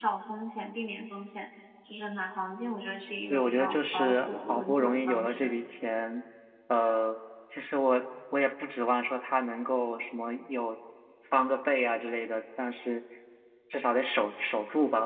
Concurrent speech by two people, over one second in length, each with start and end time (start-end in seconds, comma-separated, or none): 3.3-5.6